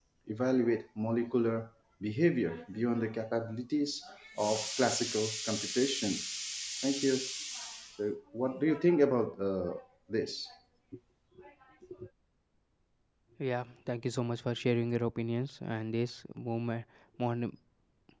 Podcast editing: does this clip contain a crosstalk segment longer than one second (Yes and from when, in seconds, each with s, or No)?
No